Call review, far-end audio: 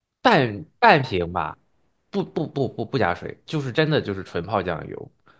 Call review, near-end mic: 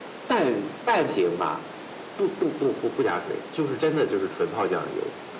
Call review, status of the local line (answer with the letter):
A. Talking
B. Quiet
B